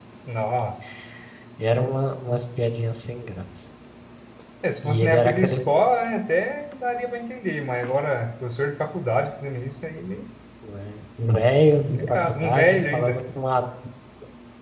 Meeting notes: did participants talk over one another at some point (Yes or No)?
Yes